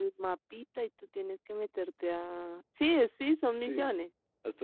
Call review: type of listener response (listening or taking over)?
taking over